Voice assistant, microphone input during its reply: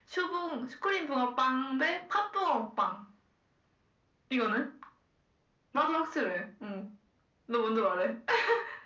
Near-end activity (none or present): none